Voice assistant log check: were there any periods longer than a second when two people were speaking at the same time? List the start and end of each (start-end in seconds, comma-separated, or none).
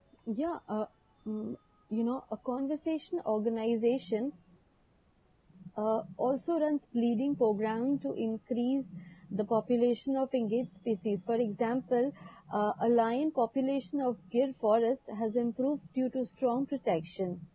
none